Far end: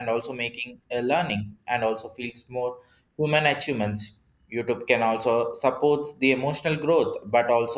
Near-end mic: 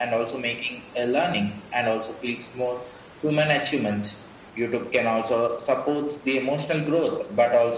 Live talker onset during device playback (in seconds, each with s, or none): none